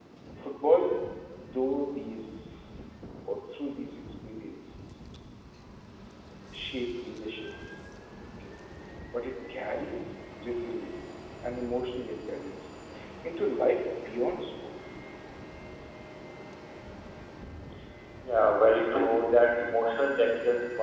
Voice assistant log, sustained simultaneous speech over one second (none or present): none